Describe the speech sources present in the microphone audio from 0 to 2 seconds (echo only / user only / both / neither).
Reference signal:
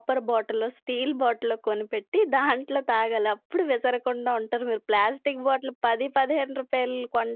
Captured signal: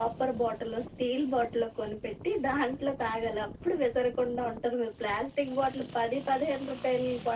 echo only